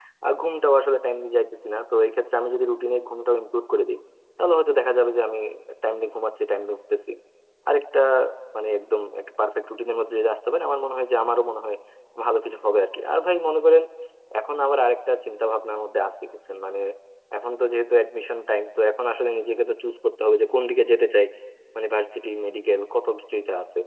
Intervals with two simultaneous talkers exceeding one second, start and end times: none

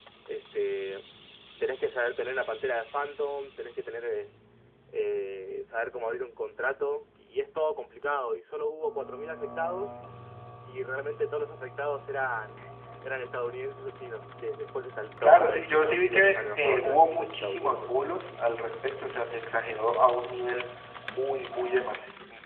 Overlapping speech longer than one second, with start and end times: 15.2-17.9

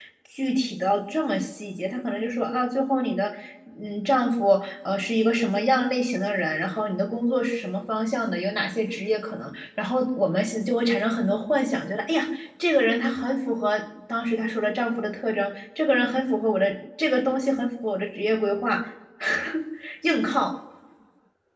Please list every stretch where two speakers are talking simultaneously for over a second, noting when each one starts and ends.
none

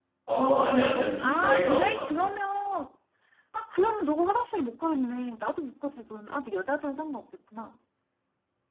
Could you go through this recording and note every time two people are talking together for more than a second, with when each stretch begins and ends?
1.0-2.3

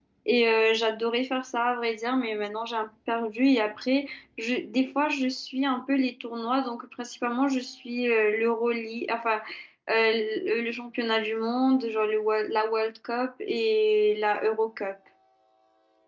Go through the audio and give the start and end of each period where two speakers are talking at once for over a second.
none

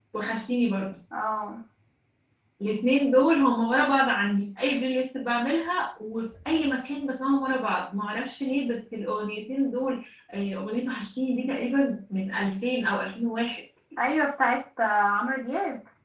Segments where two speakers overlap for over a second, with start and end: none

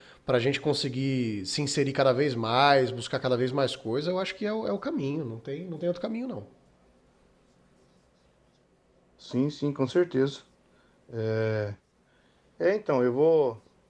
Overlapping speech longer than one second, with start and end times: none

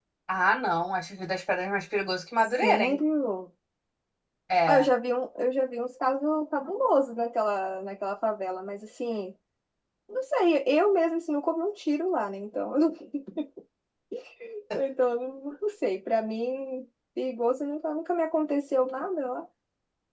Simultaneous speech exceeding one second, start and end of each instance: none

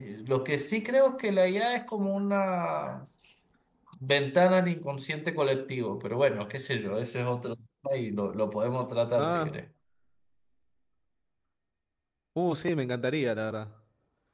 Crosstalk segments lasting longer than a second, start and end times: none

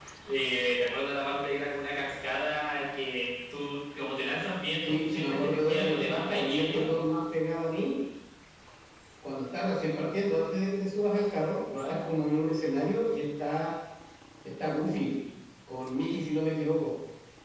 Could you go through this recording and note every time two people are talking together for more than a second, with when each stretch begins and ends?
4.9-6.8

